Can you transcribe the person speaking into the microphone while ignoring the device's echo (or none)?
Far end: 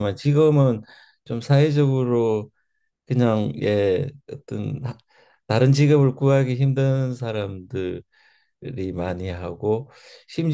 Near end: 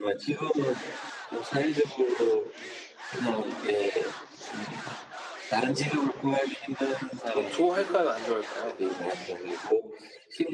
뭐랄까 좋아할까요? 안 좋아할까요?